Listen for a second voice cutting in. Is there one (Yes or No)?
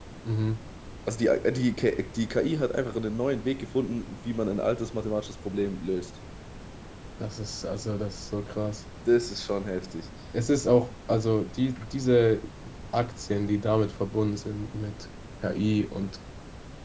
No